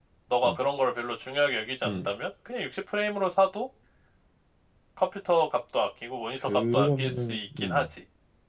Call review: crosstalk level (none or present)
present